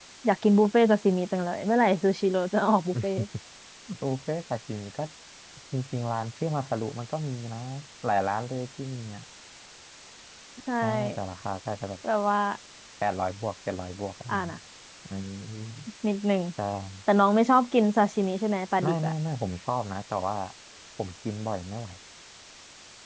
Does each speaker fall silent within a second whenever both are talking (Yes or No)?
Yes